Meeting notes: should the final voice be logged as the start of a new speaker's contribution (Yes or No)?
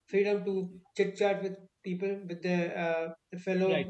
No